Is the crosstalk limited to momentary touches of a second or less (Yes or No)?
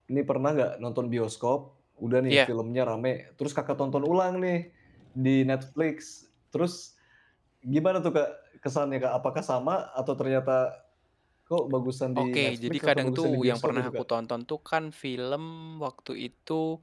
No